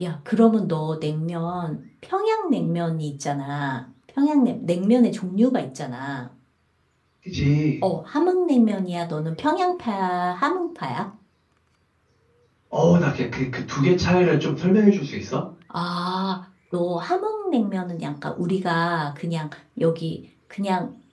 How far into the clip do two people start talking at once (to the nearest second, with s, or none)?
none